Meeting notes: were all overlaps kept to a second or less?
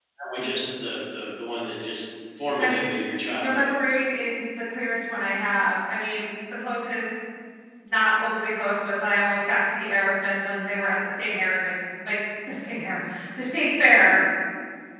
Yes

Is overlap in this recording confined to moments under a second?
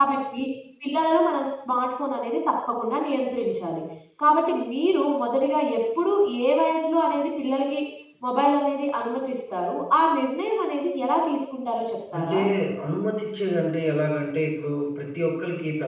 Yes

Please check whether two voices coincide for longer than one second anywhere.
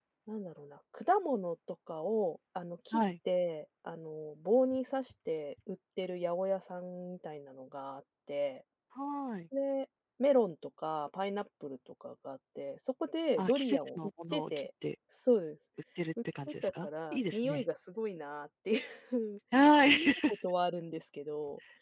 Yes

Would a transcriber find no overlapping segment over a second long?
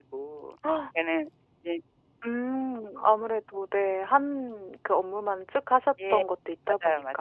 Yes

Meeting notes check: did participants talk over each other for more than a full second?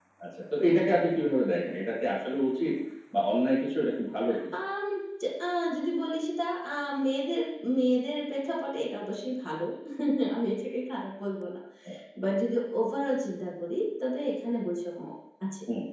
No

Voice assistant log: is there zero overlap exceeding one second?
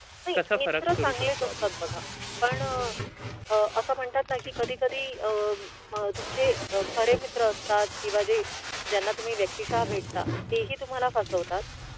No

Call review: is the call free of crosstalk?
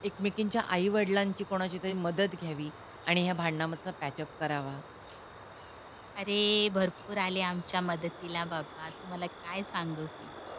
Yes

